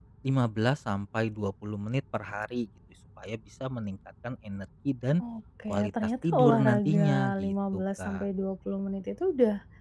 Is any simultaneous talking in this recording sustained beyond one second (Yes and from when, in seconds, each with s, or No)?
Yes, from 5.7 s